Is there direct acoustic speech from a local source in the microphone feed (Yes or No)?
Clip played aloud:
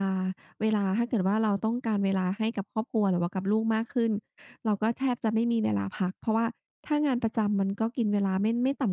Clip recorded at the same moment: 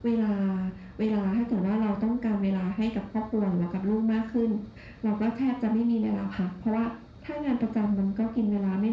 No